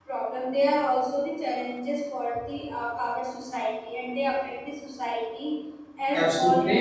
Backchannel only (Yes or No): No